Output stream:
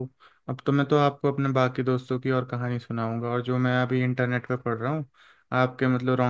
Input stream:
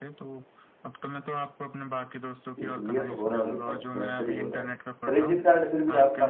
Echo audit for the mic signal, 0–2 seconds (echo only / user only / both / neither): echo only